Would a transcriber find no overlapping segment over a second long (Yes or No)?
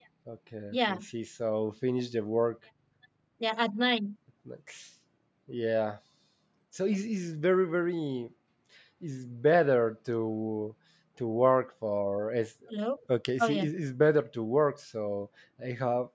Yes